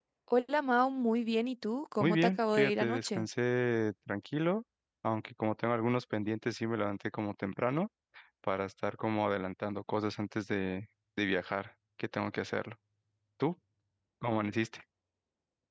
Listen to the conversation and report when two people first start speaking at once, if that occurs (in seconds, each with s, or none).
2.0 s